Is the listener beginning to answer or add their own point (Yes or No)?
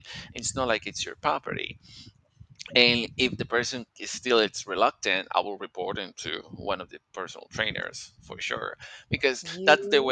No